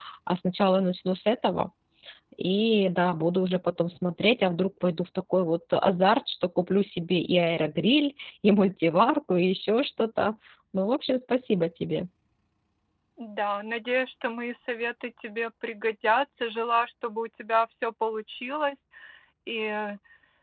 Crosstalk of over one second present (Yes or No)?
No